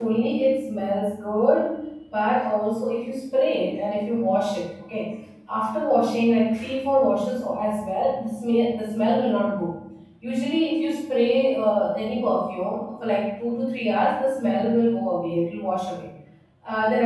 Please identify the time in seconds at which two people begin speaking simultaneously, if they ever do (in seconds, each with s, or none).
none